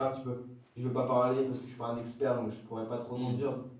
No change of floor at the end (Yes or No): No